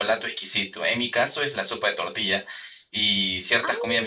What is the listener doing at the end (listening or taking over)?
listening